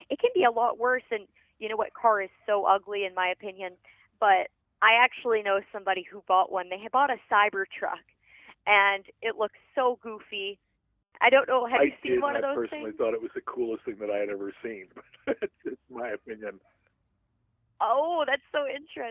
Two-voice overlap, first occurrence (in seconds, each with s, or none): 11.8 s